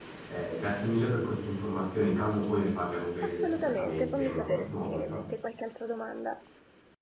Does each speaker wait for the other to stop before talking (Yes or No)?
No